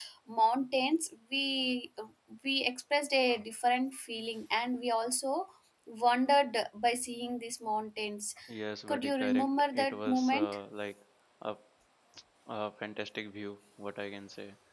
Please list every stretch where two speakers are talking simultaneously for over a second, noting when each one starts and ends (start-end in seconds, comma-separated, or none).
8.9-10.6